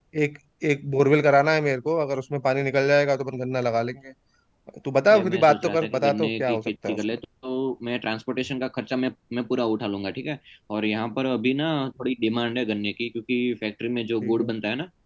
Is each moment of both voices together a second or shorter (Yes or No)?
No